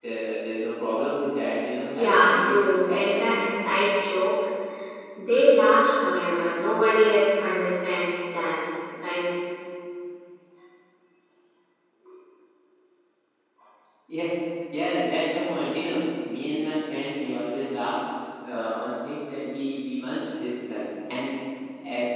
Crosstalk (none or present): present